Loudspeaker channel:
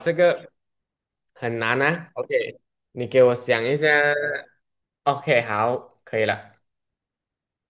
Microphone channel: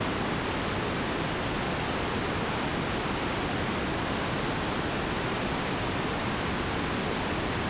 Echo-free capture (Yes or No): Yes